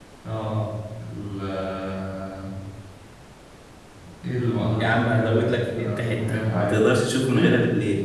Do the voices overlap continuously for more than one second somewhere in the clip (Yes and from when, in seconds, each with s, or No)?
Yes, from 4.8 s